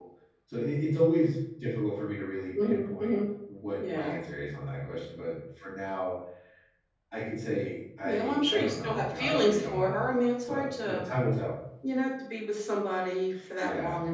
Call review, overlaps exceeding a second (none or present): present